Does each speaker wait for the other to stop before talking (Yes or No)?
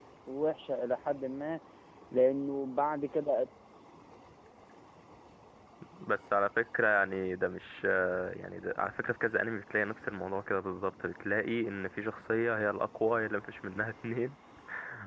Yes